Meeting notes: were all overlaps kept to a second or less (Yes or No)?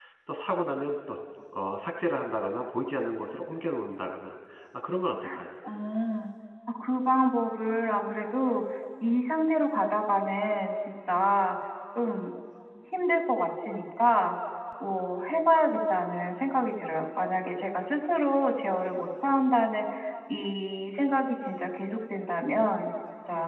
Yes